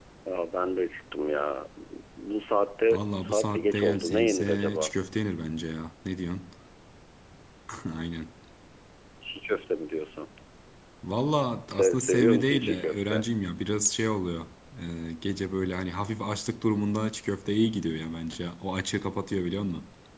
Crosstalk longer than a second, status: present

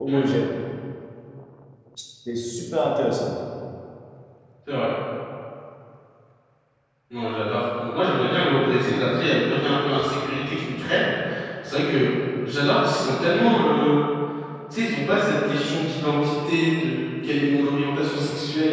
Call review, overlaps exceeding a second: none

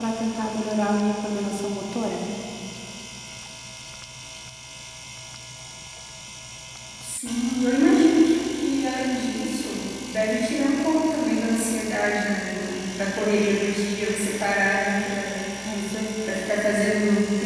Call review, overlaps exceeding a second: none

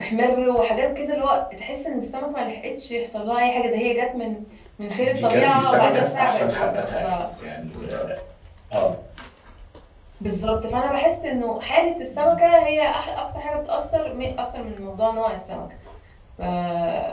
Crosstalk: present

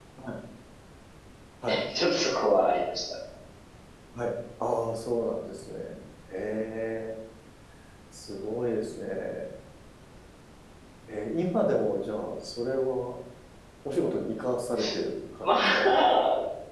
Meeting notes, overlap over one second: none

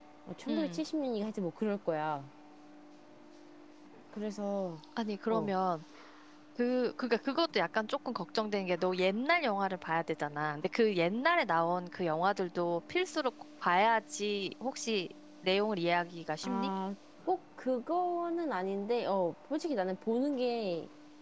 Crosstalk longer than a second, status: none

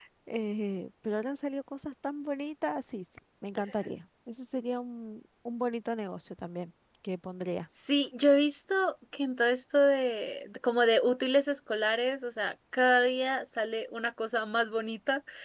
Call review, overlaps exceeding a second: none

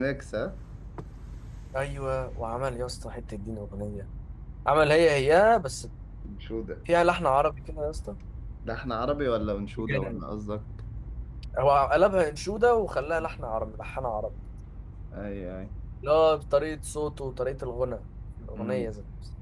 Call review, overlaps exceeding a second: none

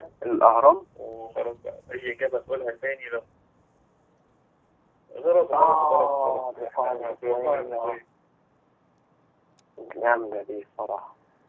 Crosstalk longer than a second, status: present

